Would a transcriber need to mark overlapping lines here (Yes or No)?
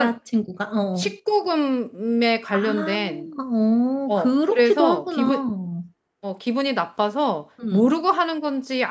Yes